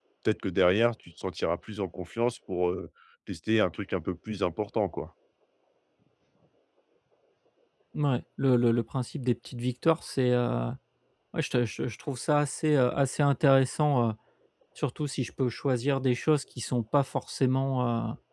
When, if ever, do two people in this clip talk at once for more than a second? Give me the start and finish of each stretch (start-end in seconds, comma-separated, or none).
none